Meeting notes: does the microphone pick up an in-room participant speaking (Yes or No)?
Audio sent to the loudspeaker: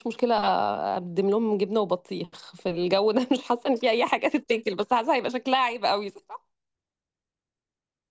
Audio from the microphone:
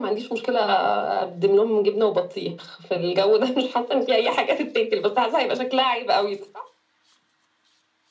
No